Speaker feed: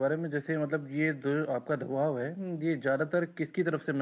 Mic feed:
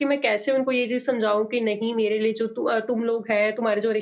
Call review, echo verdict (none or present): none